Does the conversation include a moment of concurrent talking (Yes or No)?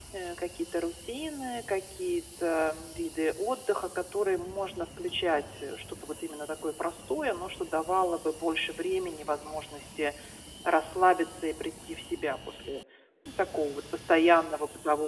No